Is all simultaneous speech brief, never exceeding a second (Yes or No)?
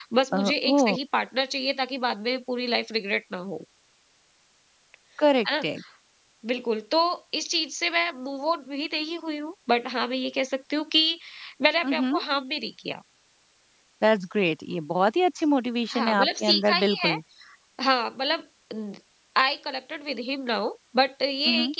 No